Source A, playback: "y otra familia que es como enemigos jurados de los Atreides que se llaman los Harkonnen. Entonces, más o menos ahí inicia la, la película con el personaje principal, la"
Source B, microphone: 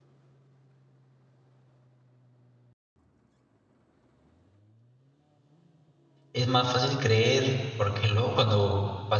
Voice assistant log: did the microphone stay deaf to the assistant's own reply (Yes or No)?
Yes